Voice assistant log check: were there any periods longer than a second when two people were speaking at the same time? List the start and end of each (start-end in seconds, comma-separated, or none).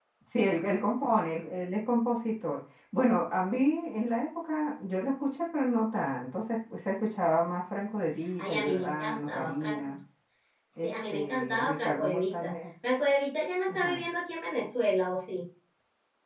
8.4-9.9, 10.8-12.5